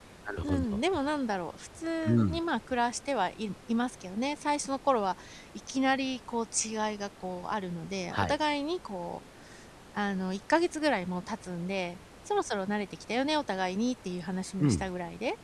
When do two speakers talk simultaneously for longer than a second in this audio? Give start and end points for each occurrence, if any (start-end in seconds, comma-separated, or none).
none